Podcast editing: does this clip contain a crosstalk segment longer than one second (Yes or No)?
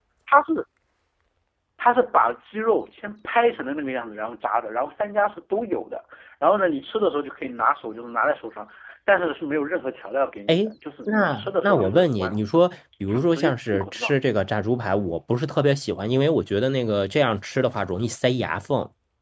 Yes